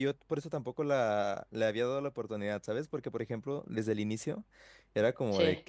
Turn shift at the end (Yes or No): No